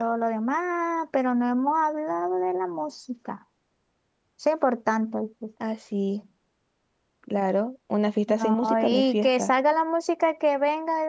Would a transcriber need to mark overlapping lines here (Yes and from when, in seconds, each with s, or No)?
Yes, from 8.3 s